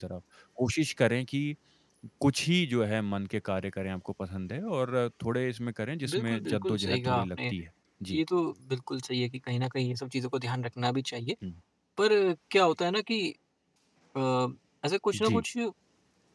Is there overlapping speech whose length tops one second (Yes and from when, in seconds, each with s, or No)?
Yes, from 6.1 s